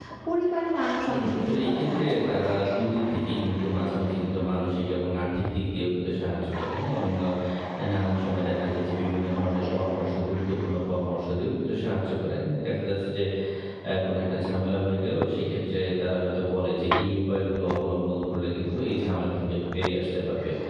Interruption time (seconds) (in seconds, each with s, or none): 1.1 s